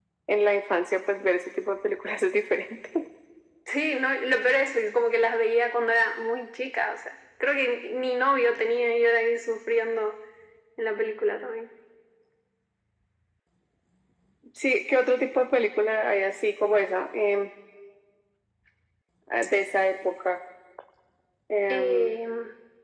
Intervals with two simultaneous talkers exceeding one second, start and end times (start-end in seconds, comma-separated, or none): none